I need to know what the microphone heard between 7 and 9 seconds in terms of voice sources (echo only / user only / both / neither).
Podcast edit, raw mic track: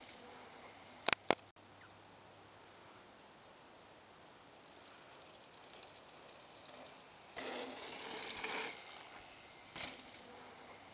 neither